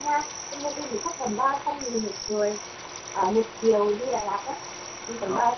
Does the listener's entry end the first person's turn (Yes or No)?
Yes